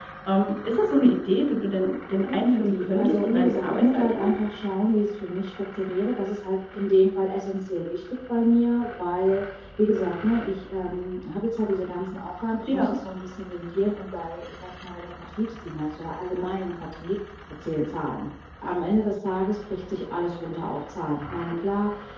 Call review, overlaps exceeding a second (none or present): present